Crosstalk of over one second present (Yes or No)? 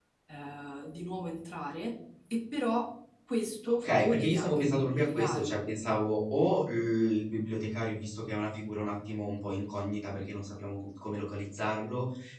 Yes